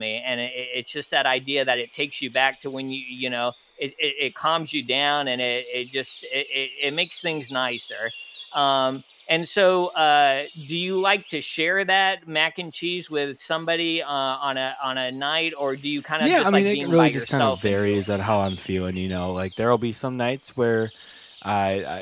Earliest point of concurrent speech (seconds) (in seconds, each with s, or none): 16.2 s